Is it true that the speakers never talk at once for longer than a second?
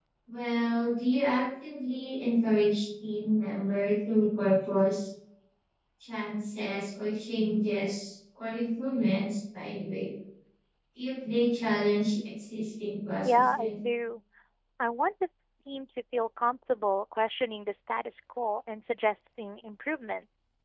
Yes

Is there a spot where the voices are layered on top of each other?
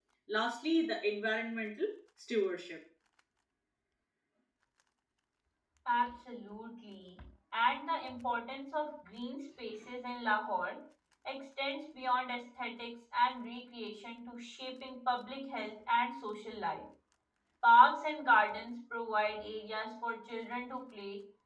No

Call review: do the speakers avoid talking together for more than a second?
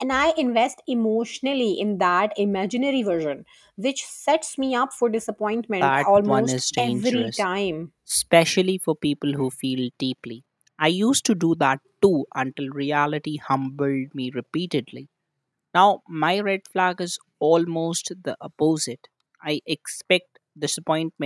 No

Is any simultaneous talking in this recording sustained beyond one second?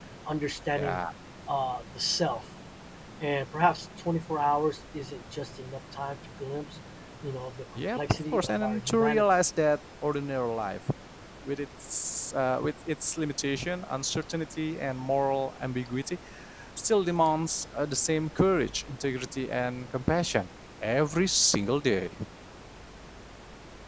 Yes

